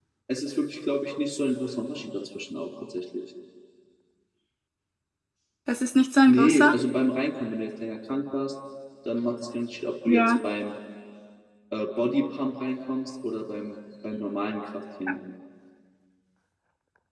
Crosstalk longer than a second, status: none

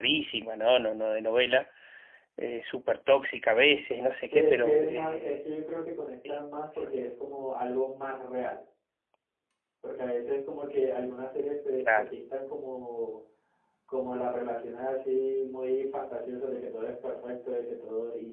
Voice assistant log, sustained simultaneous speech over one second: present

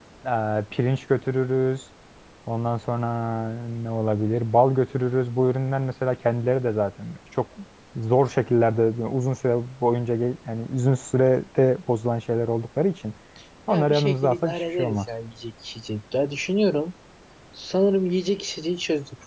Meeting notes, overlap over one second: present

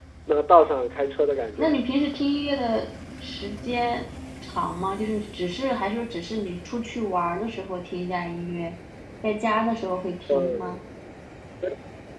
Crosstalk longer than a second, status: none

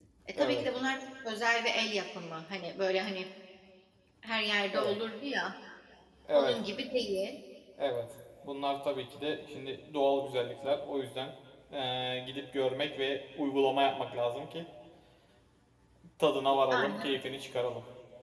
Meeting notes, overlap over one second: none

